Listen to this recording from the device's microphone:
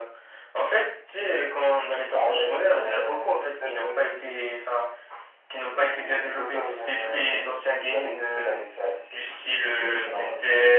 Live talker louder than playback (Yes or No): No